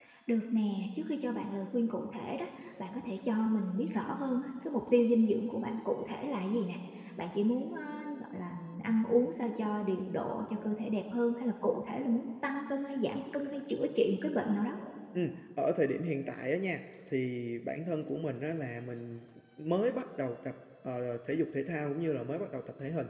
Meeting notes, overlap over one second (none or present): none